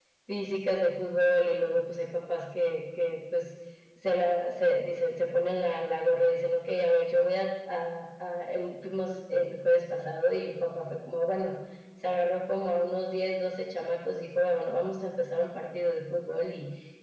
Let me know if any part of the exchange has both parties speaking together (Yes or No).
No